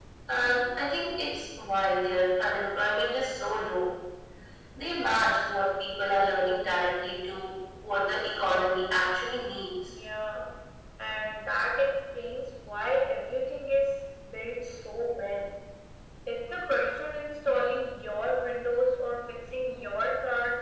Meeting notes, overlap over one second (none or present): none